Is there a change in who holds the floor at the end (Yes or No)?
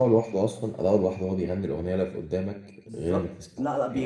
Yes